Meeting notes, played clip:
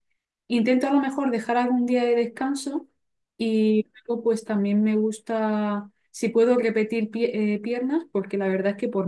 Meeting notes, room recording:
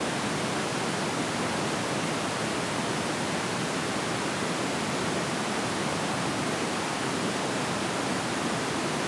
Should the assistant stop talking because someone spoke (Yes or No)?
No